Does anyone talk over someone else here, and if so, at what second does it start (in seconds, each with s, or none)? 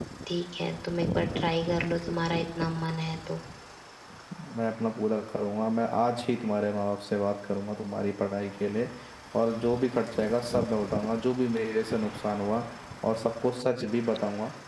none